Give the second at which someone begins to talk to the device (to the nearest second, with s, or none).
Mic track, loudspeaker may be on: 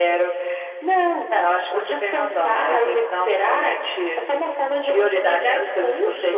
none